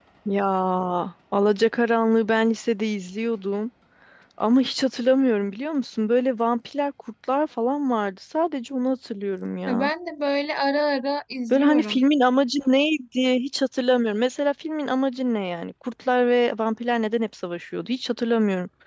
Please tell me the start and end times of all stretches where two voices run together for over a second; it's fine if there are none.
none

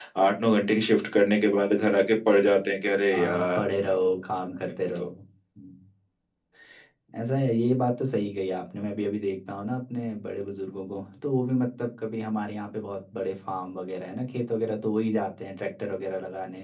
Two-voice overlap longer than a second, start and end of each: none

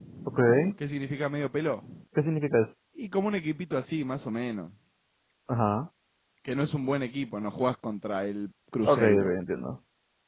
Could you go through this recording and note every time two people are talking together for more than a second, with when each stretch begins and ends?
none

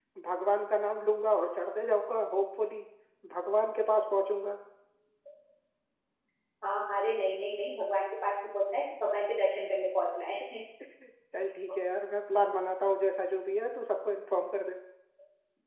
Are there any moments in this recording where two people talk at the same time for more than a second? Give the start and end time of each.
none

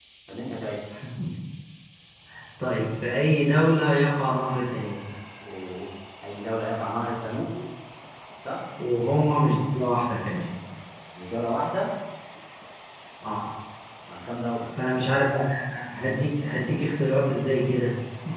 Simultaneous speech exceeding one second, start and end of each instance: none

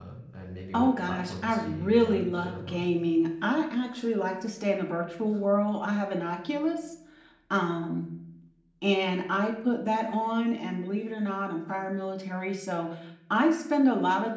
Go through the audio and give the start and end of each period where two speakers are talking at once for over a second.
0.7-2.8

